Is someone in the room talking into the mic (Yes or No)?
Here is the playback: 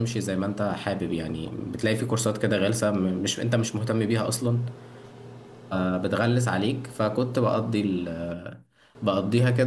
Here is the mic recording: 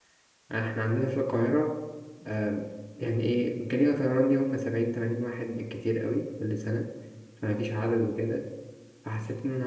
Yes